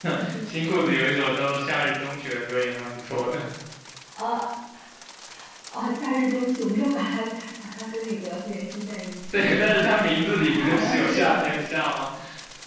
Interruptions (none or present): present